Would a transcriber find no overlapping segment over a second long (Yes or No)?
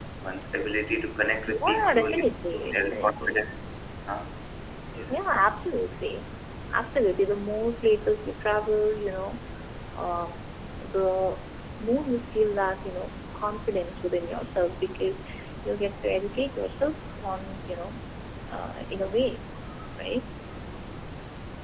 No